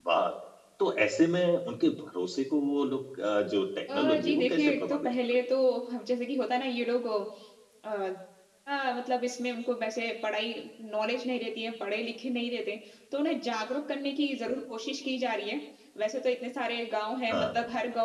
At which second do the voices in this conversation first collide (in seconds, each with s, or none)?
3.9 s